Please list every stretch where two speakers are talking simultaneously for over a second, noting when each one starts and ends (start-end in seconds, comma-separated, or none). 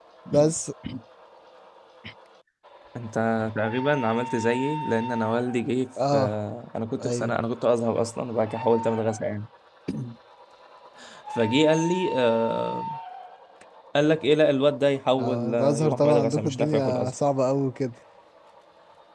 15.2-17.1